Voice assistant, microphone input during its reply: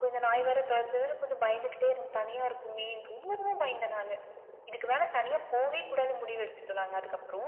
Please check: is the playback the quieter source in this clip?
No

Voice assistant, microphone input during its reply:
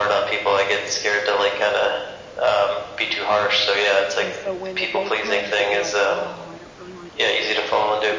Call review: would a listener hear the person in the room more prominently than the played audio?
No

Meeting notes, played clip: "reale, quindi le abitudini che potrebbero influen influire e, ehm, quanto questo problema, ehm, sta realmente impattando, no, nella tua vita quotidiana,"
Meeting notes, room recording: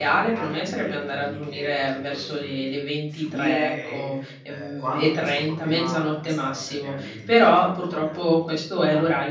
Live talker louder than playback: Yes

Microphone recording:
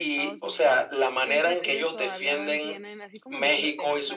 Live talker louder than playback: No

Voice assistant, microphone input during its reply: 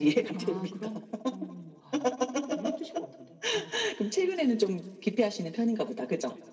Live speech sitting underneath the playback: Yes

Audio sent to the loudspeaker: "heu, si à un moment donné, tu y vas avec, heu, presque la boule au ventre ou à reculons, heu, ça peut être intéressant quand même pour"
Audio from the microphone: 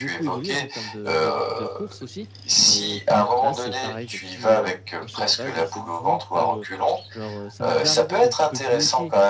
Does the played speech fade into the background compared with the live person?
No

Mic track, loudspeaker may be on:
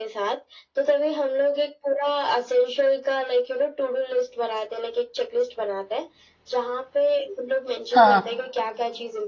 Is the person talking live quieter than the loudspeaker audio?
No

